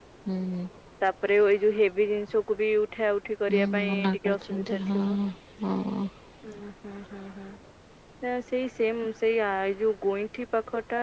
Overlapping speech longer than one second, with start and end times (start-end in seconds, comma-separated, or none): 3.5-5.0